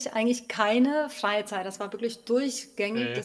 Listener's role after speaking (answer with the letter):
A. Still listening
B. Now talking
A